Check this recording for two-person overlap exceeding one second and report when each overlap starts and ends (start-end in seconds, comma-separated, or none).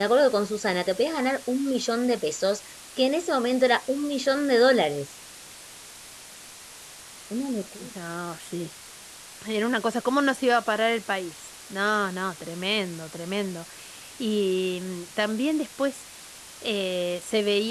none